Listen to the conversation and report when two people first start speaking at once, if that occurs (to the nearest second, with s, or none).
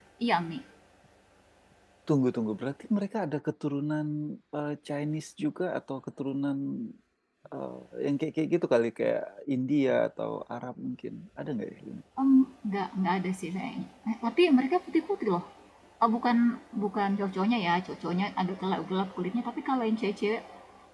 none